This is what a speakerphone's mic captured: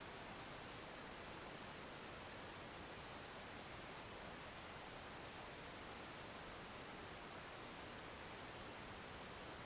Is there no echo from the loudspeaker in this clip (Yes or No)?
Yes